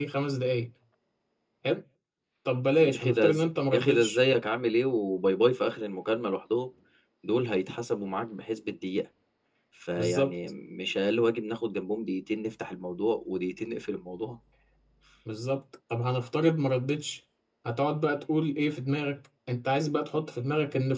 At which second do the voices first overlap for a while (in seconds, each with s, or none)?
2.8 s